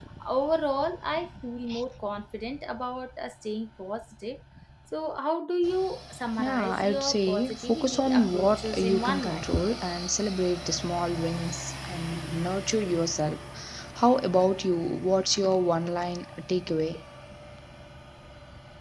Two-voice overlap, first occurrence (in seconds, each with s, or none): 6.4 s